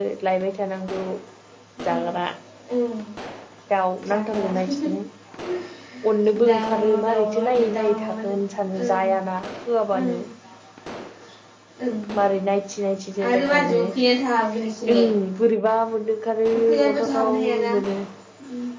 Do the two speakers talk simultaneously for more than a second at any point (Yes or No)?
Yes